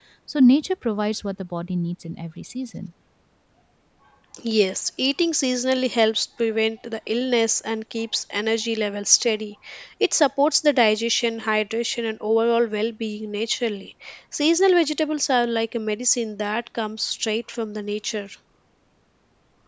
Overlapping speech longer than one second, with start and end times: none

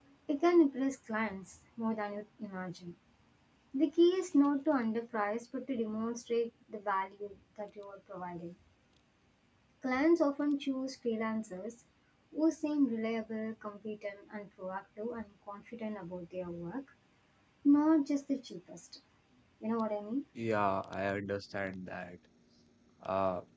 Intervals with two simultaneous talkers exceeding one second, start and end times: none

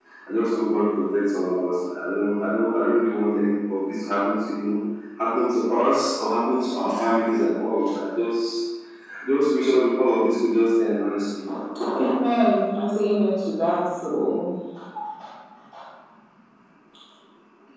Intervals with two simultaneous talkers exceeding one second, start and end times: none

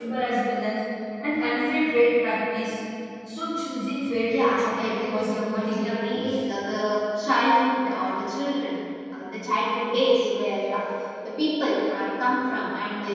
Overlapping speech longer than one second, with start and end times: 4.3-6.3

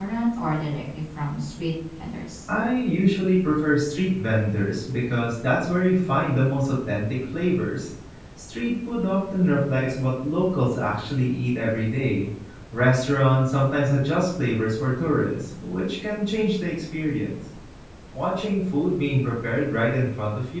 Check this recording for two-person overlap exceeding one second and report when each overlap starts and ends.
none

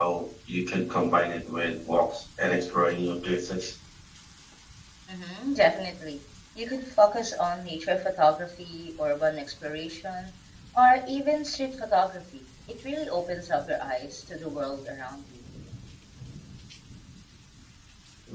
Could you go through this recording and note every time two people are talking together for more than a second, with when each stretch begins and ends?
none

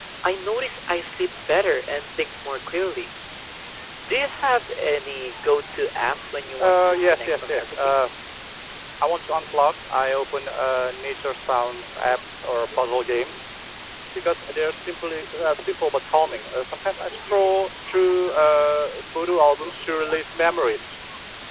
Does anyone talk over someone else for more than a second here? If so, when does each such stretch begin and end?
6.6-7.9

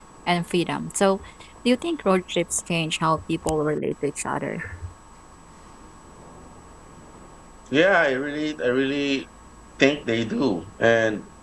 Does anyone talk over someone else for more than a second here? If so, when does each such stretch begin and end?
none

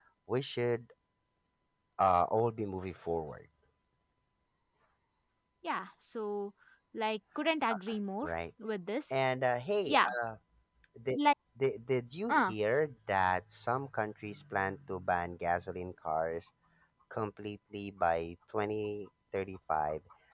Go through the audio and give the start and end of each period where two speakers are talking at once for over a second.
none

